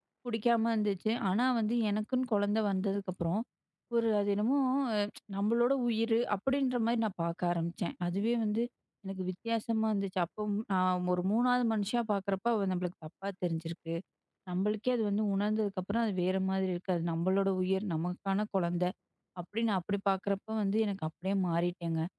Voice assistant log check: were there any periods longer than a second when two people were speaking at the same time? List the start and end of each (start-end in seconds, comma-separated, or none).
none